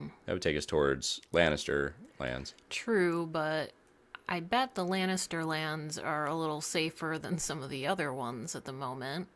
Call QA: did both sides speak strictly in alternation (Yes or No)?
Yes